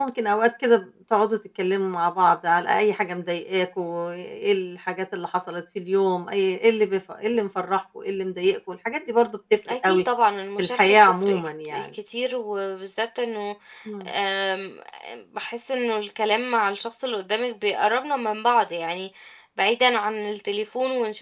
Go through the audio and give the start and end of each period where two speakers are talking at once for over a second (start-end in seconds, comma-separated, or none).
10.6-11.9